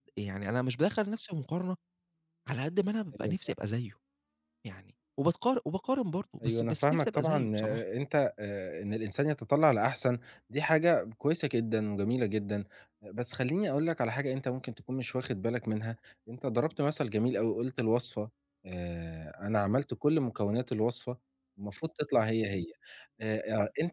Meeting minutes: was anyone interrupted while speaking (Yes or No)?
Yes